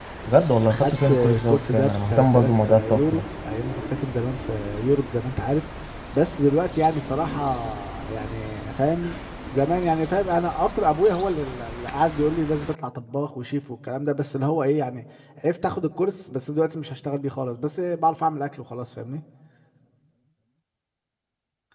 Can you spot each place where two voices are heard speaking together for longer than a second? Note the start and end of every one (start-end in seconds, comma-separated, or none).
0.7-3.2